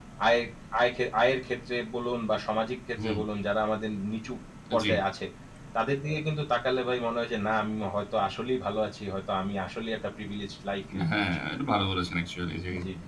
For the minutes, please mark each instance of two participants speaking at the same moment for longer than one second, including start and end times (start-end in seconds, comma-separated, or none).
none